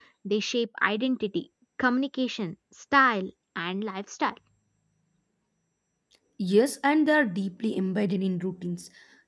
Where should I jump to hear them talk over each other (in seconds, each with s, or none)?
none